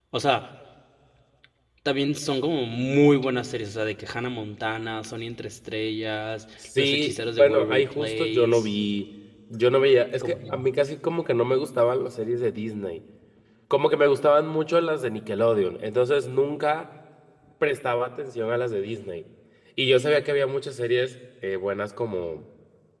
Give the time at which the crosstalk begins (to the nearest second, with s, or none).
7 s